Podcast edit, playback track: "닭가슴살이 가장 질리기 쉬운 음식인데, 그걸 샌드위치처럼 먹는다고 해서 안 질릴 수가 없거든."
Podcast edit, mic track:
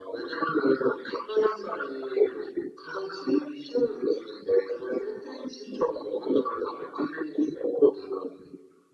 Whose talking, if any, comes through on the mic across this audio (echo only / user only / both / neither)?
echo only